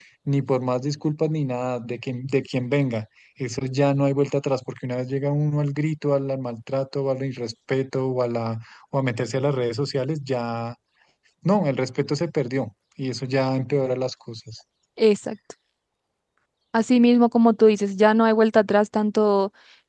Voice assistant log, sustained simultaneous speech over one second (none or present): none